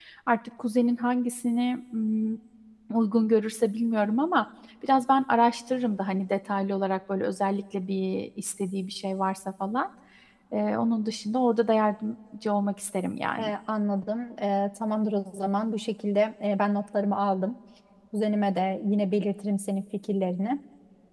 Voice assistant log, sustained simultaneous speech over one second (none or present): none